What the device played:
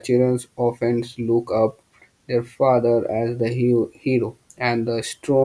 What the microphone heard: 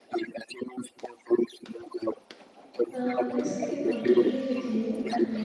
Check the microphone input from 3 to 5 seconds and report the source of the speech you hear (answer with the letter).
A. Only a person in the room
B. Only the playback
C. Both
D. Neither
C